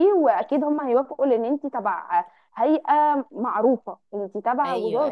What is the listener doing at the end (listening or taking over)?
taking over